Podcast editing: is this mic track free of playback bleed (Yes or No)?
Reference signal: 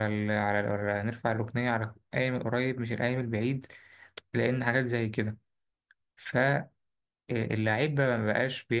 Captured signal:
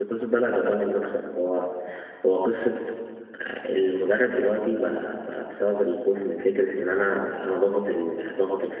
Yes